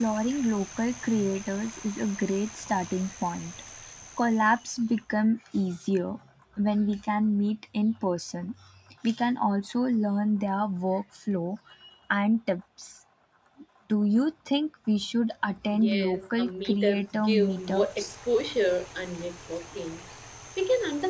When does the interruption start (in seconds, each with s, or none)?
15.7 s